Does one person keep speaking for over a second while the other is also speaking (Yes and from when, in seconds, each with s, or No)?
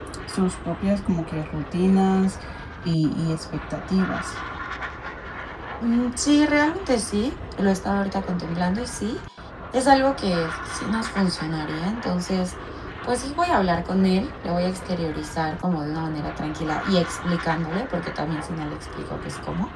No